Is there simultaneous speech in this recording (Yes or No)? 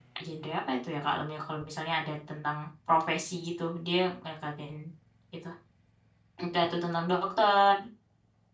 No